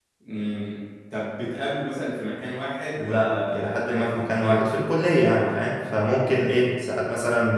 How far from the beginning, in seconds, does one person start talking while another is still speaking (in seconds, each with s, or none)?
3.0 s